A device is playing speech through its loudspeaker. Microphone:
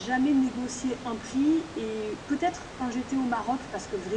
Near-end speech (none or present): none